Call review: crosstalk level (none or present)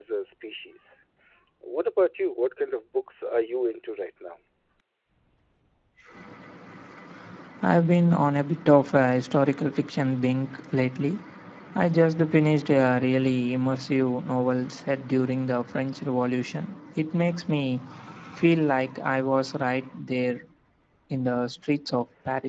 none